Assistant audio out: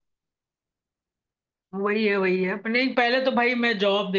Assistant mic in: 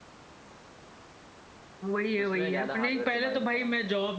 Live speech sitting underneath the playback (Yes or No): Yes